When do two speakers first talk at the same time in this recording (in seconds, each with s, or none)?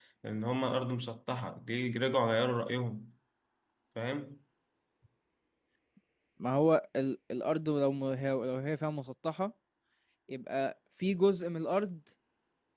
none